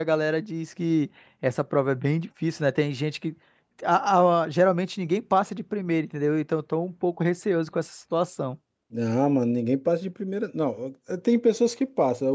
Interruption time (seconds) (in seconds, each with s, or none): none